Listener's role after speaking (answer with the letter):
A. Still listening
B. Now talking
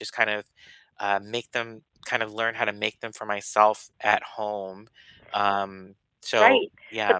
B